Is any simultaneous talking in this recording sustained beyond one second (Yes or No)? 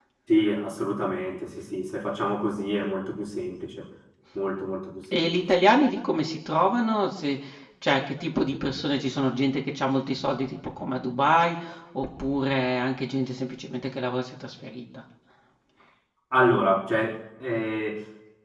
No